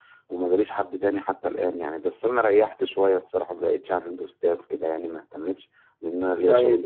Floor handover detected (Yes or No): Yes